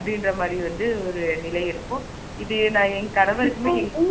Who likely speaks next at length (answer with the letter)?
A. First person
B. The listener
B